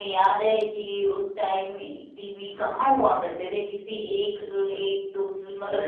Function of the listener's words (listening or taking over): taking over